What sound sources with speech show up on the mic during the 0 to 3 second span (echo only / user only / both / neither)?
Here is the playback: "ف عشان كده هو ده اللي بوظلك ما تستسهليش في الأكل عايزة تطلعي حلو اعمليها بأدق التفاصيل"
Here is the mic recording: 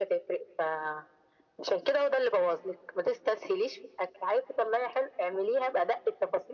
echo only